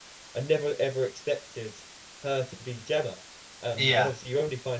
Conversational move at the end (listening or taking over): listening